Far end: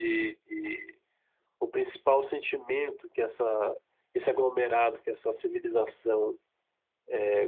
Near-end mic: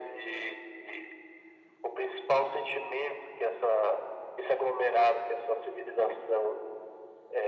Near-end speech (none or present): none